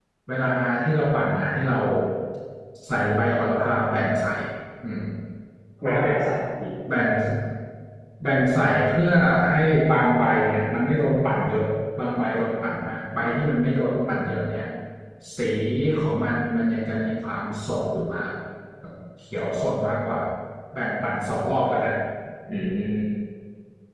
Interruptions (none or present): none